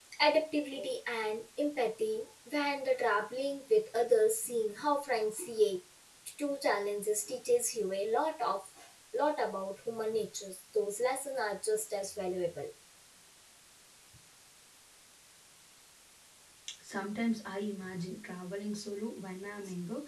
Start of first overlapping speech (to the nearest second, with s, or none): none